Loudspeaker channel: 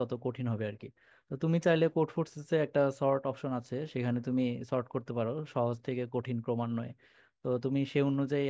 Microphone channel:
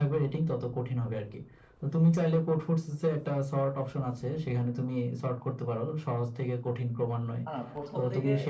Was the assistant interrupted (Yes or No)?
Yes